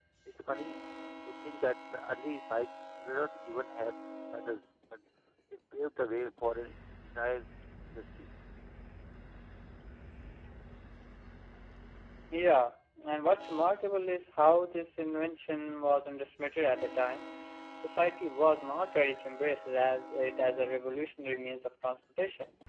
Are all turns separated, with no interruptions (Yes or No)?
Yes